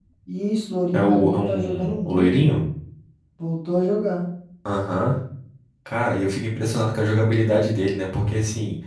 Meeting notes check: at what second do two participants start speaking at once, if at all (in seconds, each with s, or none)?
0.9 s